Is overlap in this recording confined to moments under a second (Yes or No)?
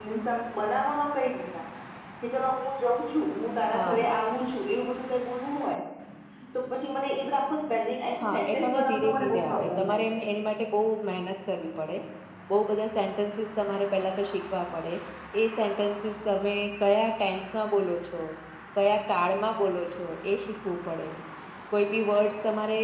No